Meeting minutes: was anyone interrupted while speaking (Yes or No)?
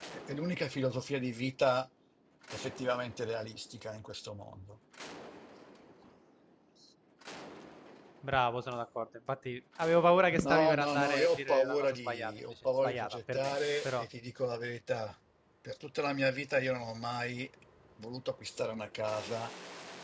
Yes